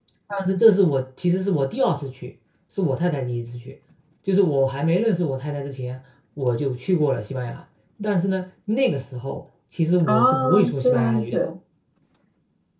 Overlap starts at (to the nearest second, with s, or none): 10 s